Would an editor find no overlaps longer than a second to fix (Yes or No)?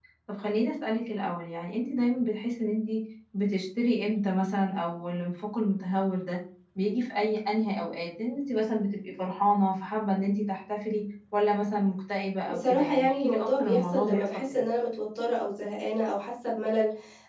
No